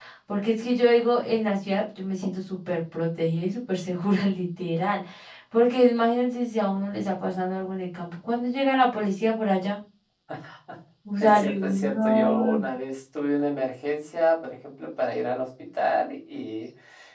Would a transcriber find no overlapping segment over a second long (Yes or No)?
No